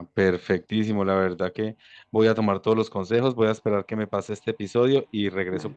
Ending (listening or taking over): listening